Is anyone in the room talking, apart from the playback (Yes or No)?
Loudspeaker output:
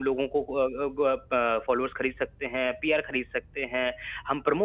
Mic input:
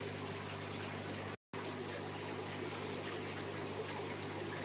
No